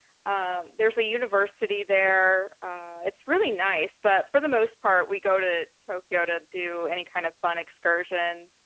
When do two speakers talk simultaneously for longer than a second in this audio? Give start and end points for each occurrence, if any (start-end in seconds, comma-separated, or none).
none